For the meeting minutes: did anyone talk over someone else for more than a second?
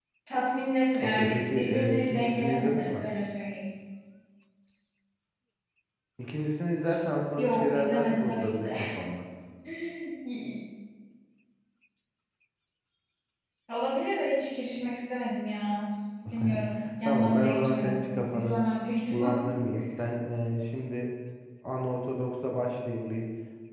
Yes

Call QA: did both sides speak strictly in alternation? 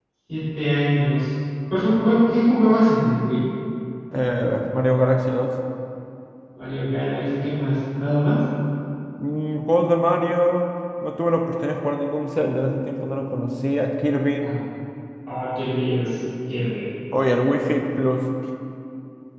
Yes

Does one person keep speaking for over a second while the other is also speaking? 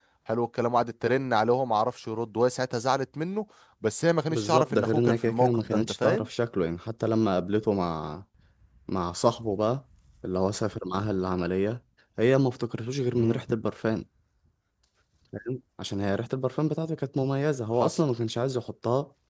Yes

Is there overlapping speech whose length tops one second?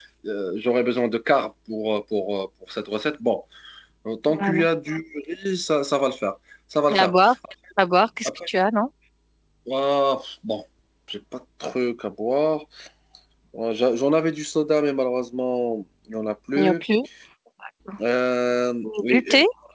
No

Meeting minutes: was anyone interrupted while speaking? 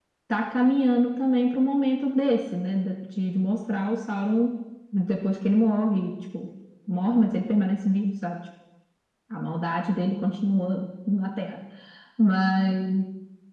No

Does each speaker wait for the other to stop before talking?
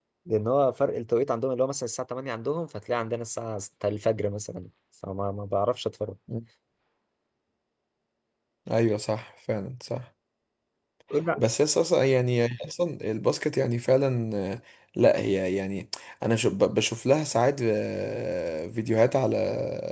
Yes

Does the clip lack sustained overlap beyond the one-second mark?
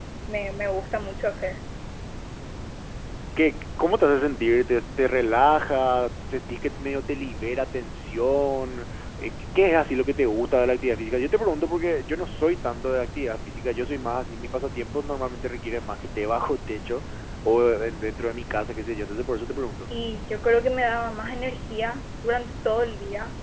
Yes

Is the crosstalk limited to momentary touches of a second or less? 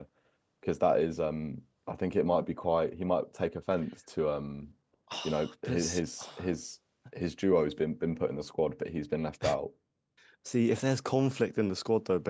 Yes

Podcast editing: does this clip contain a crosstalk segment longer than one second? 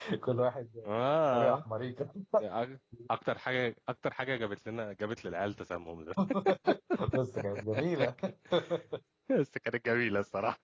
No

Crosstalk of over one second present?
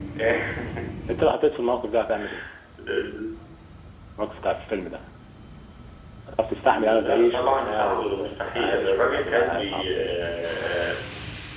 Yes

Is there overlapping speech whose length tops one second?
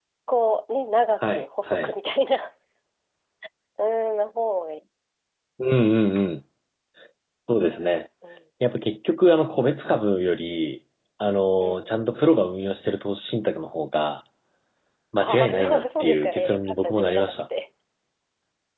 Yes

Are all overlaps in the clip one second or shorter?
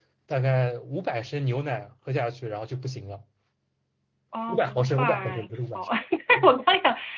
No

